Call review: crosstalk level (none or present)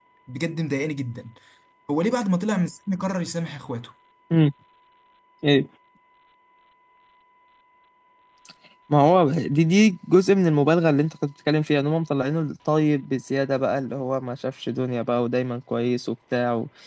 none